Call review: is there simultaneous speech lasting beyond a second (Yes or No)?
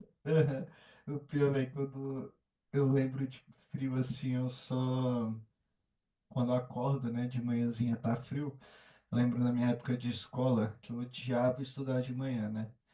No